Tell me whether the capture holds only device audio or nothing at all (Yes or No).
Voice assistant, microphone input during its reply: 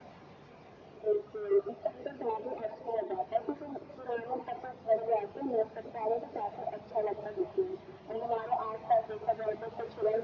Yes